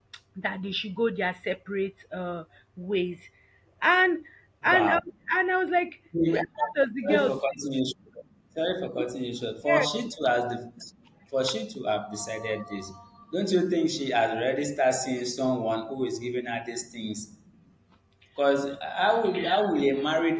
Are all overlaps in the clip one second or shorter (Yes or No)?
Yes